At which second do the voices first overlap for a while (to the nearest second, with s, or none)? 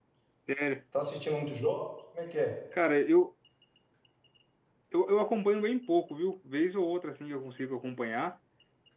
none